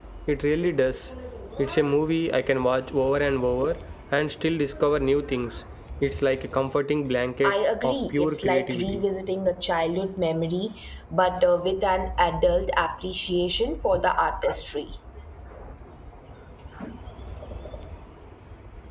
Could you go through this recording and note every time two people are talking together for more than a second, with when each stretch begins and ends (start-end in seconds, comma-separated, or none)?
7.4-9.0